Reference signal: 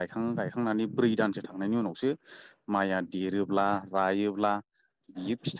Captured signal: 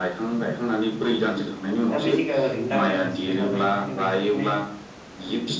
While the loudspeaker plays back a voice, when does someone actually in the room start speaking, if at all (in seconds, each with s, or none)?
1.9 s